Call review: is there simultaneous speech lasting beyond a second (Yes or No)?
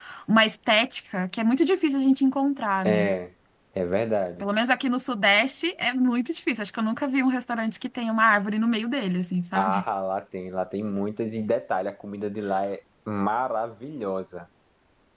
No